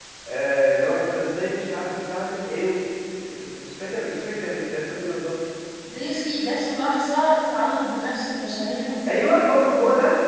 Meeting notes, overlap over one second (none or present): none